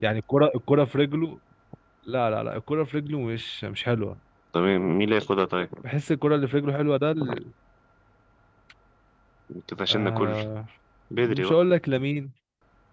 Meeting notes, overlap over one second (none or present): none